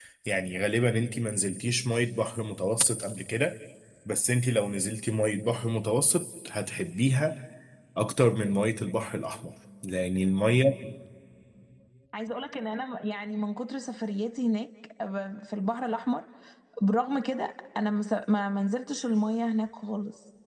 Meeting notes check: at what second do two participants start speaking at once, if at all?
none

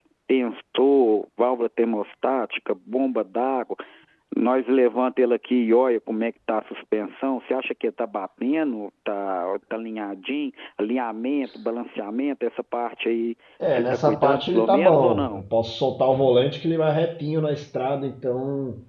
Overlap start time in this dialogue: 13.6 s

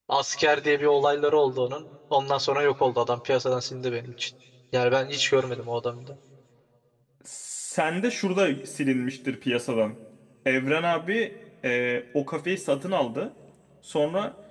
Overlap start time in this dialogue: none

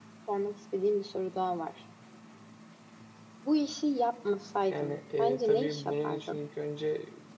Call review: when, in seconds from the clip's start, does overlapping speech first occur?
4.7 s

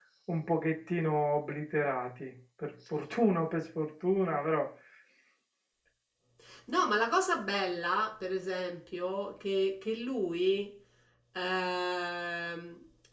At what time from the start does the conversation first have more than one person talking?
none

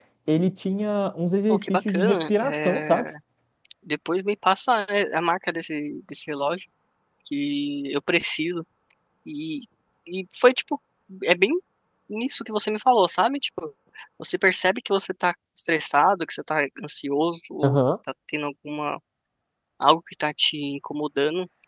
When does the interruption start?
1.5 s

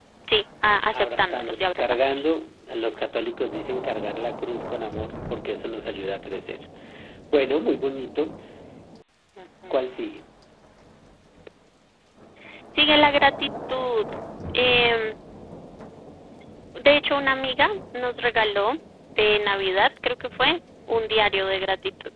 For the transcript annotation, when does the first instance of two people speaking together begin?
0.9 s

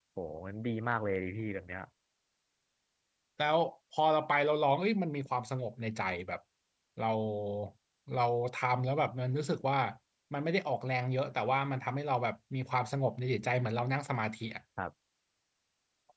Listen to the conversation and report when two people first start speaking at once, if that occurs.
none

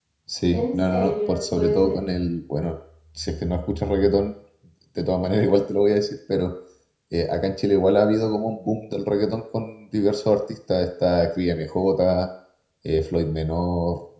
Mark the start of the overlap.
0.5 s

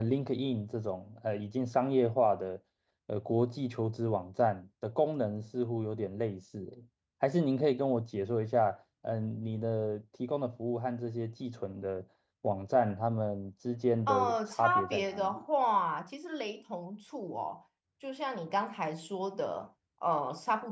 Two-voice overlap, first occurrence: 14.1 s

